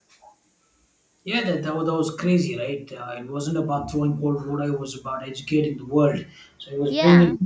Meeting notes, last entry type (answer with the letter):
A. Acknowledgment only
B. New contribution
A